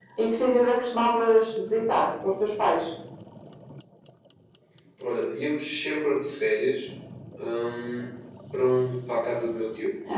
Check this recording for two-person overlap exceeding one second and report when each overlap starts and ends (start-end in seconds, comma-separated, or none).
none